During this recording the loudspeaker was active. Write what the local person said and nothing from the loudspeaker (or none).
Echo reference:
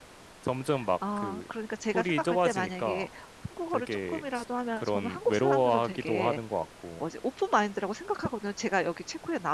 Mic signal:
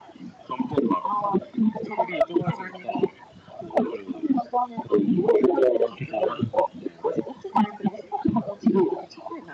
none